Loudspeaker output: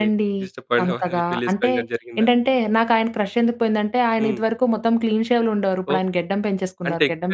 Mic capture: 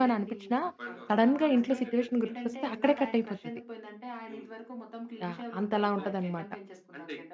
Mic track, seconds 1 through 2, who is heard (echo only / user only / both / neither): both